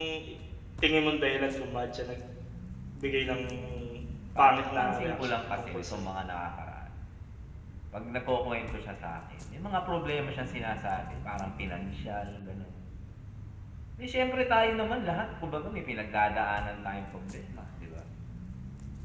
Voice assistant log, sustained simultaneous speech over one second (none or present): present